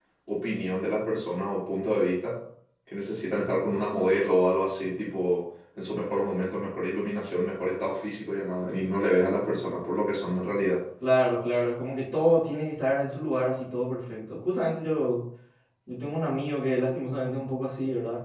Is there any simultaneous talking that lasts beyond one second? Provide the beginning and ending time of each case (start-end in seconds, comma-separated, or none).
none